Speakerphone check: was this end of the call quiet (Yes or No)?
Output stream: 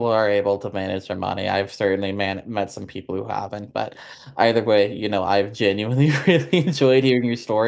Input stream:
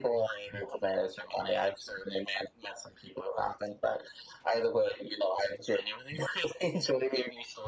Yes